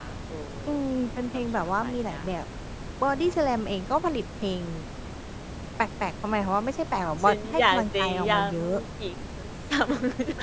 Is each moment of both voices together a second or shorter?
No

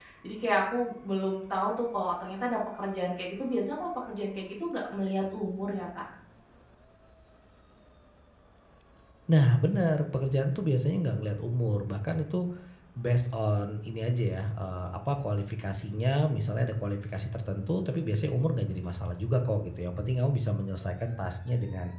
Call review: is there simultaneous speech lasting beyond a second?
No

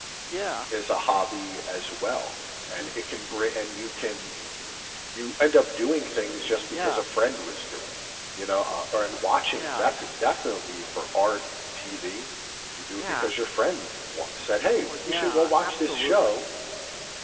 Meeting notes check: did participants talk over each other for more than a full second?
Yes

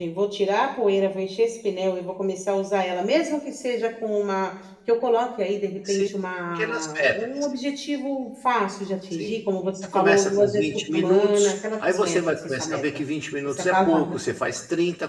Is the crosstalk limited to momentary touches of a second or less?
No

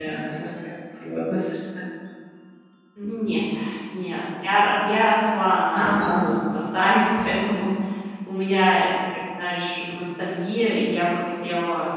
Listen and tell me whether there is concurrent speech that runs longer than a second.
No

